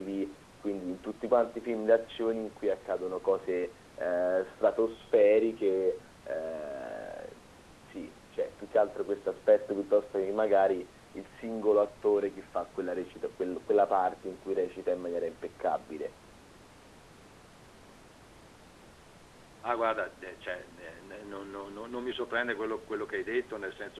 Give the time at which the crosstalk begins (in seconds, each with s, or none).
none